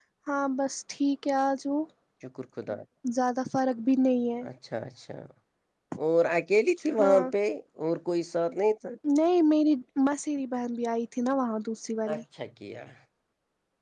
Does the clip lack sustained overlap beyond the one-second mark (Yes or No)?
Yes